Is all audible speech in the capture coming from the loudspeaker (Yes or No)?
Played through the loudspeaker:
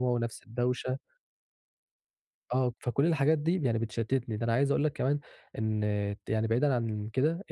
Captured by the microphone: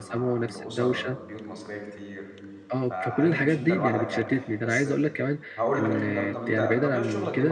No